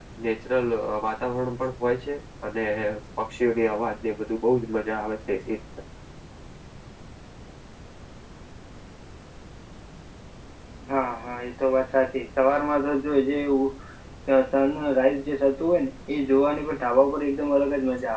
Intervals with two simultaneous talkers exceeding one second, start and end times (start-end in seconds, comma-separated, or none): none